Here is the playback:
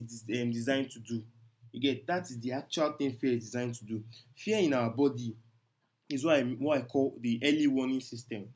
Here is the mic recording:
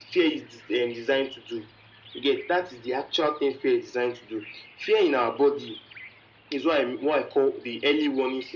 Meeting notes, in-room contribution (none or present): none